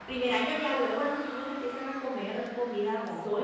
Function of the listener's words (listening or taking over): taking over